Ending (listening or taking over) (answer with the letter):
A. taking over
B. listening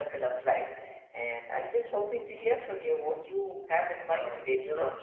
A